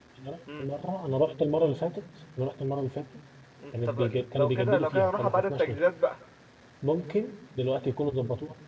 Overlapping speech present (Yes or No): Yes